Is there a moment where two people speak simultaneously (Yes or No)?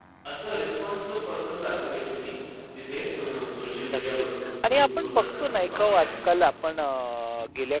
Yes